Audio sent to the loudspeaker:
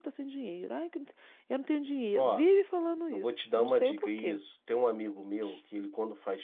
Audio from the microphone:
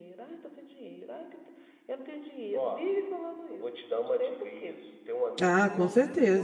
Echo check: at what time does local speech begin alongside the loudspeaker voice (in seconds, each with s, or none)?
5.4 s